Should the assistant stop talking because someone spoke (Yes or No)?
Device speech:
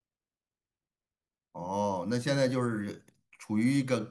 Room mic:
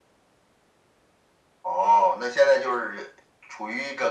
No